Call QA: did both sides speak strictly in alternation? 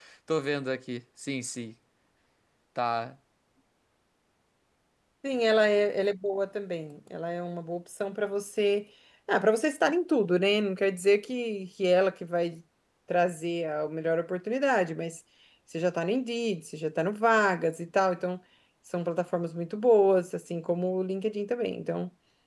Yes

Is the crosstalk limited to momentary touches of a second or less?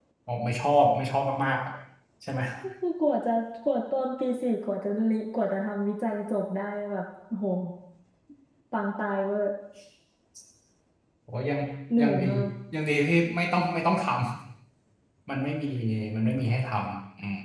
Yes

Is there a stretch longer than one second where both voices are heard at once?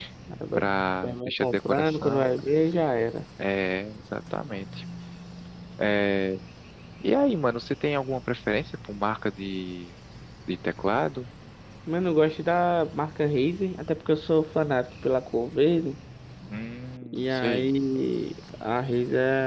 Yes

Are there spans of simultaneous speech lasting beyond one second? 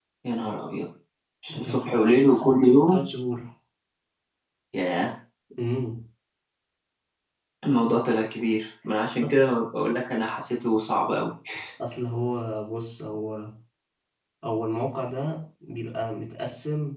Yes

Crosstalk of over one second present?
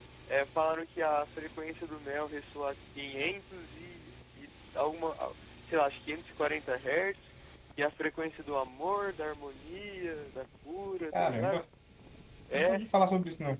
No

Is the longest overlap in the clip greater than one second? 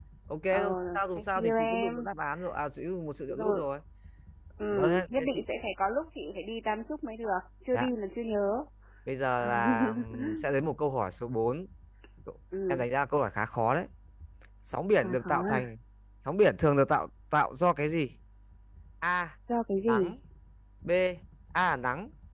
Yes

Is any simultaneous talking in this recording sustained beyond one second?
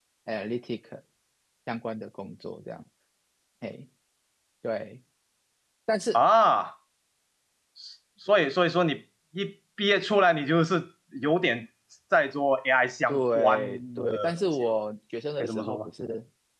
Yes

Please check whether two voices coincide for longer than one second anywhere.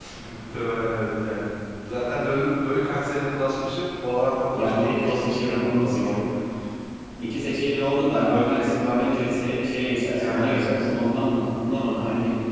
Yes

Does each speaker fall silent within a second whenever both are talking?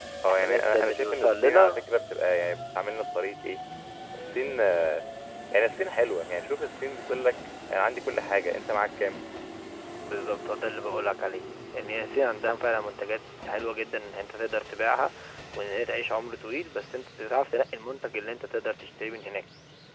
No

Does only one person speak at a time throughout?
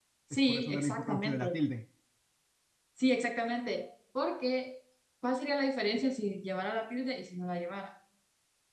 No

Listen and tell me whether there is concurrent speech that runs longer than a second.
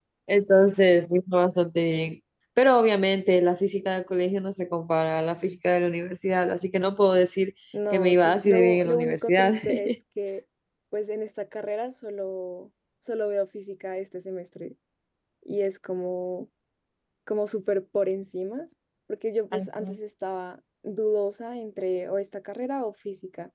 Yes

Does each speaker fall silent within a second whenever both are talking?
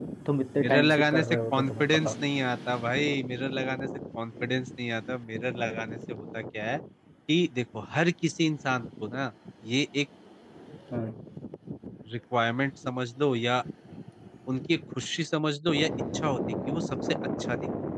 No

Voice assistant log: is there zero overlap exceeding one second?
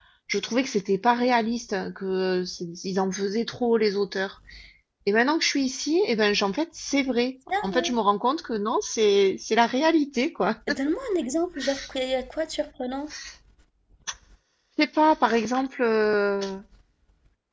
Yes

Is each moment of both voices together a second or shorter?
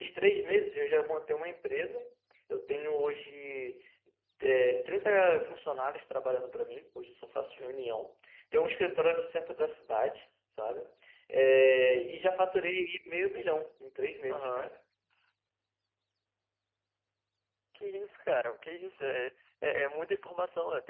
Yes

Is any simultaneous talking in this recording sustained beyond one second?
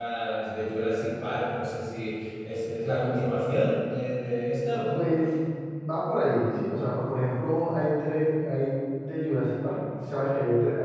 No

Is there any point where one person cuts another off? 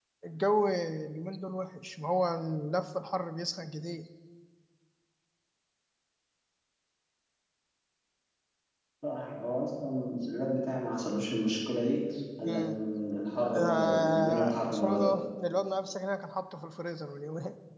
Yes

